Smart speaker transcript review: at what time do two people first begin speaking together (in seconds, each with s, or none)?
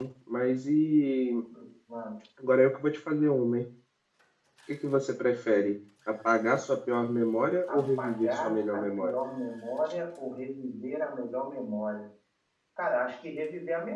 7.7 s